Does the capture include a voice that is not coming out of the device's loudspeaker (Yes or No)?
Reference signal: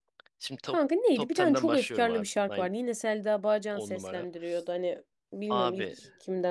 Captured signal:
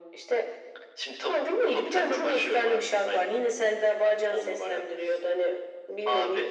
No